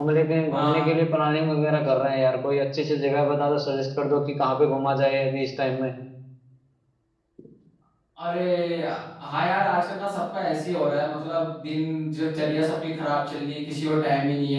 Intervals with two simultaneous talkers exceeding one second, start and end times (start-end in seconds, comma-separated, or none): none